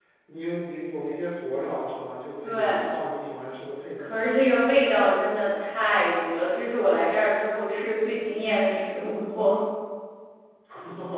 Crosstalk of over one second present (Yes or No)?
No